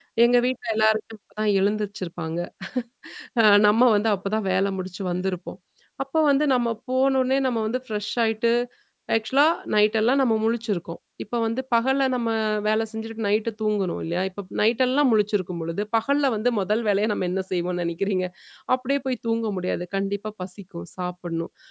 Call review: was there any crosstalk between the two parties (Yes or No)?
No